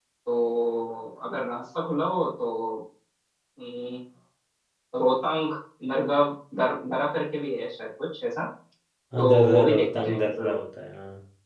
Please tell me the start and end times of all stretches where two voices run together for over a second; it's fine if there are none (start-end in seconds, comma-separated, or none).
9.2-10.6